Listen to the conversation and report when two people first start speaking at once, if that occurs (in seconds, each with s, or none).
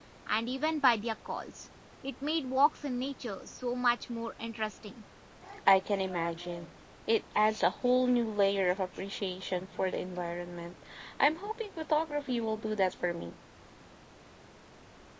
none